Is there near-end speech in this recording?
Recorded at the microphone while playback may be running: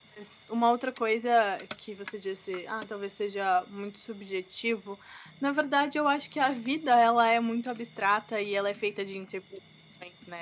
Yes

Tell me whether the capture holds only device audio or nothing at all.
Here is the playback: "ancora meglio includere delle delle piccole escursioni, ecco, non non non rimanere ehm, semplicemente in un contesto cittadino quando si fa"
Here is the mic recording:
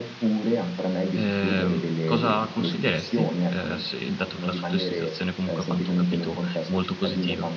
No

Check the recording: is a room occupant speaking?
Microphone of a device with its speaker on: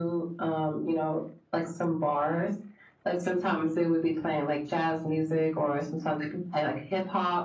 No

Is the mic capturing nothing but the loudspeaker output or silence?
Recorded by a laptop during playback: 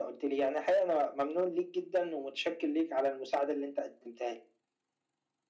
Yes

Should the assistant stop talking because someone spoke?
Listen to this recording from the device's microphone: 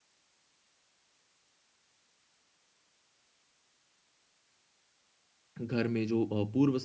Yes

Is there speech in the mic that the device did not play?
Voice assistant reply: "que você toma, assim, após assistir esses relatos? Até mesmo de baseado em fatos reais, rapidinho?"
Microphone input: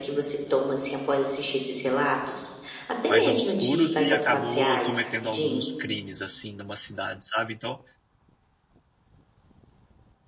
Yes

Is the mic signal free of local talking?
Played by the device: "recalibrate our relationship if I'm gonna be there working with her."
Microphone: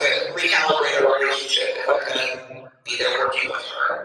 Yes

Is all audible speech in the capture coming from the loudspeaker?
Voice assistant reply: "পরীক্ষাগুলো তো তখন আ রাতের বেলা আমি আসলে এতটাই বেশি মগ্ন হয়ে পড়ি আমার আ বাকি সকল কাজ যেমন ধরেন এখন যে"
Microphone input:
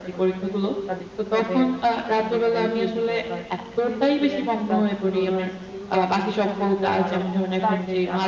No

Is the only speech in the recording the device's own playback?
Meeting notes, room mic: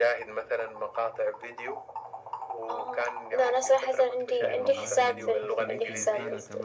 No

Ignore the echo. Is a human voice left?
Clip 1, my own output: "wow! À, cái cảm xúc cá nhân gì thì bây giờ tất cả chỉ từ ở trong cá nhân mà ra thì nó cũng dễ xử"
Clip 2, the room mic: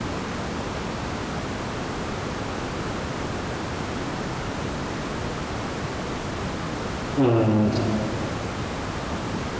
Yes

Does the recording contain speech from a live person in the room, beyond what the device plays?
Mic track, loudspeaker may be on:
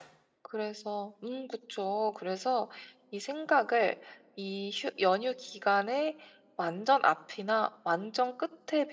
Yes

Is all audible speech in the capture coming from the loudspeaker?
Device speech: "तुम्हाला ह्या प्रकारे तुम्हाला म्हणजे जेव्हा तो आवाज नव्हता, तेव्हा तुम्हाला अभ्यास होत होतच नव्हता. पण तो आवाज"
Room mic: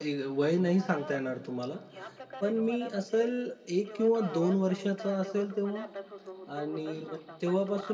No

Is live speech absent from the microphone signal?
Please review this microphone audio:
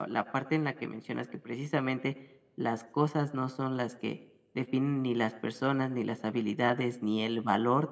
No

